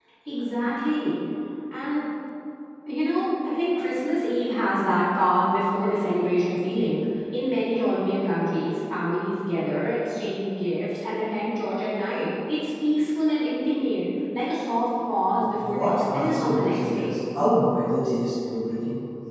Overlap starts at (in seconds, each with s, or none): 15.6 s